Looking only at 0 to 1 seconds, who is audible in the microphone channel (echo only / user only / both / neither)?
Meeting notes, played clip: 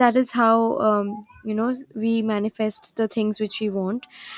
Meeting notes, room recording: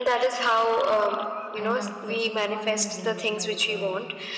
echo only